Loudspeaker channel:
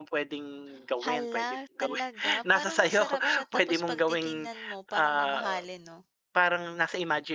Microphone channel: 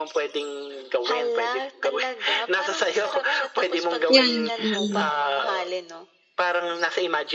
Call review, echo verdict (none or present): present